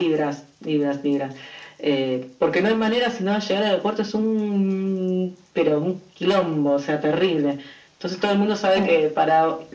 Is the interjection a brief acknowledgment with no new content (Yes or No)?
Yes